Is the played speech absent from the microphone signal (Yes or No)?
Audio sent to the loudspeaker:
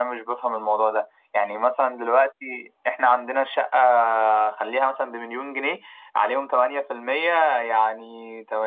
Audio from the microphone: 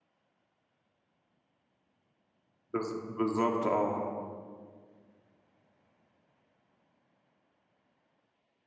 Yes